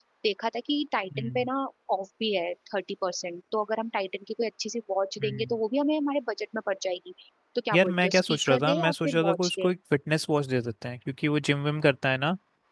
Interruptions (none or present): present